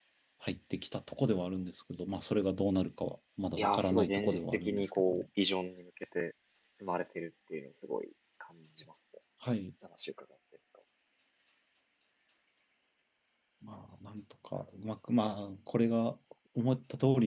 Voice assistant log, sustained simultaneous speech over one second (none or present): present